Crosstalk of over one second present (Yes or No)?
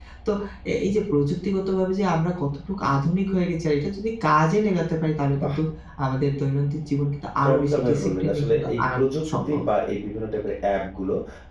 Yes